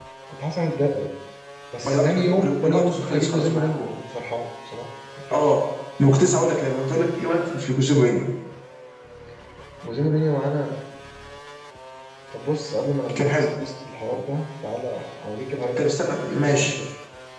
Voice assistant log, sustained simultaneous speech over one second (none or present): present